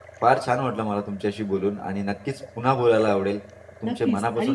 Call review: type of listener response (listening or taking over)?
taking over